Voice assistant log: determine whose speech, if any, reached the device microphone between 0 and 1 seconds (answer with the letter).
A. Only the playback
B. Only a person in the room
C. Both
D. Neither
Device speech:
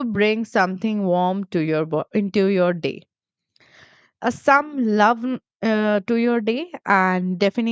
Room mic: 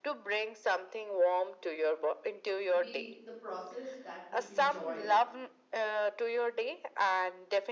A